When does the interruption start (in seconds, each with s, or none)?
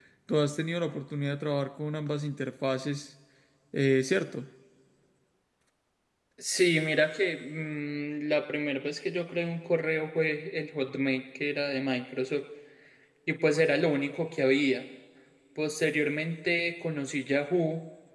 none